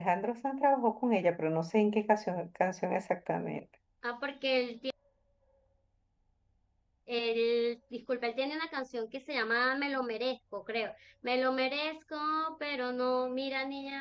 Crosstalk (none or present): none